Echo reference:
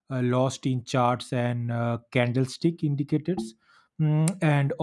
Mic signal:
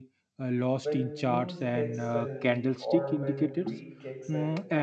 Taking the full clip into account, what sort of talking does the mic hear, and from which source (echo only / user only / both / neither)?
both